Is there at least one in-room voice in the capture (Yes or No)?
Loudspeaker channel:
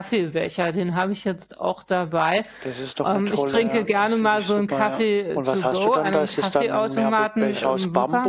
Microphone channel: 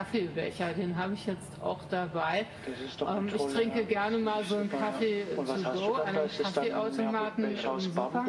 No